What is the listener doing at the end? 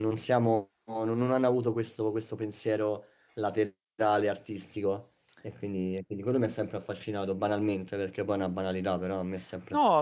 taking over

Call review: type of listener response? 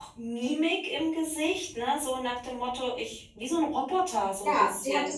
taking over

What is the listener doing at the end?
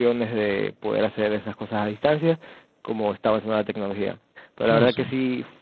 listening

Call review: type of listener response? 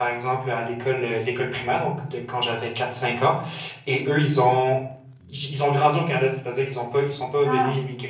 listening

